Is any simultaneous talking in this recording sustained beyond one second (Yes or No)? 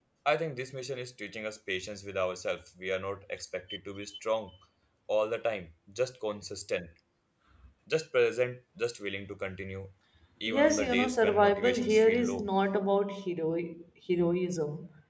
Yes